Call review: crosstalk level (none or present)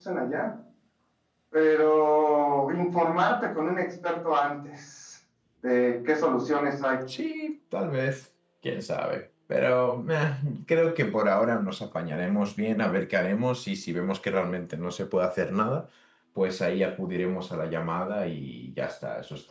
none